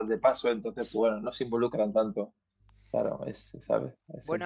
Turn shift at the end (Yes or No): Yes